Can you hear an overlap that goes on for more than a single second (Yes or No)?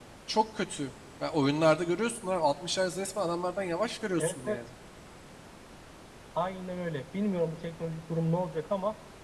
No